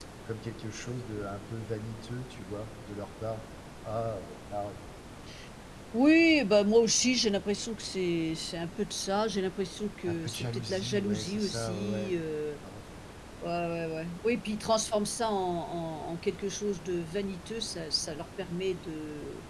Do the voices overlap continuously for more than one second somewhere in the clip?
Yes, from 10.0 s

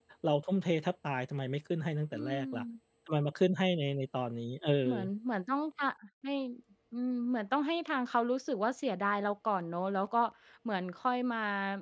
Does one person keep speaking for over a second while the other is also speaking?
No

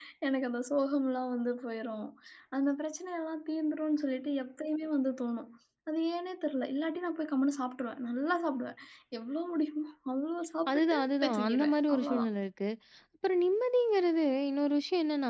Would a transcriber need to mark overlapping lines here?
Yes, from 10.7 s

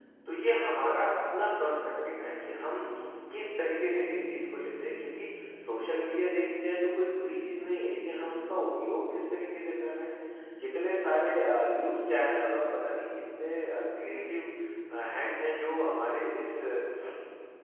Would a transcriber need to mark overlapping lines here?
No

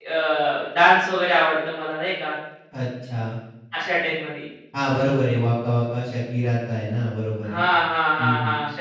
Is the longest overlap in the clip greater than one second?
No

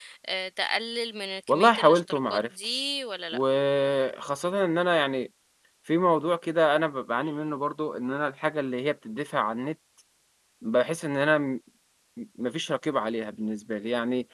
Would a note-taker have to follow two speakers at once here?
Yes, from 1.5 s

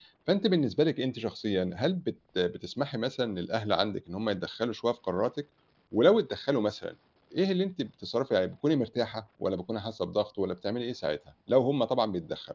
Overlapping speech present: No

